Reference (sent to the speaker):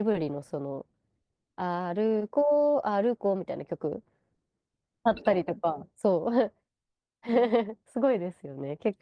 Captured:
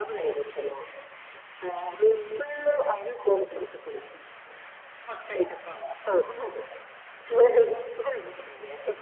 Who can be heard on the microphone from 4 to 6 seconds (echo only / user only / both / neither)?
echo only